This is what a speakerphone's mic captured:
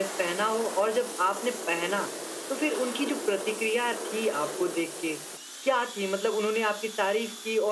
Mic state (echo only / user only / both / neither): echo only